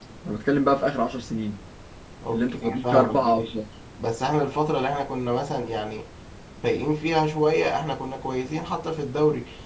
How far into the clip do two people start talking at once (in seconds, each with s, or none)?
2.3 s